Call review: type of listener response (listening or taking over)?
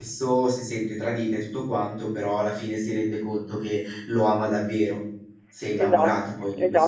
taking over